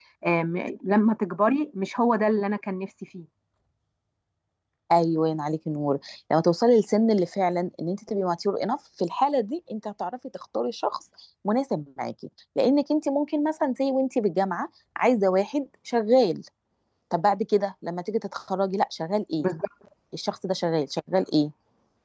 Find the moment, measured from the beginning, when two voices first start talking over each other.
none

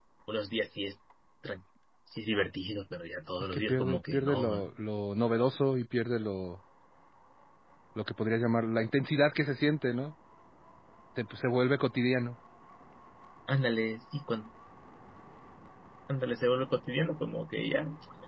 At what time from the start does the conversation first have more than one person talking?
3.4 s

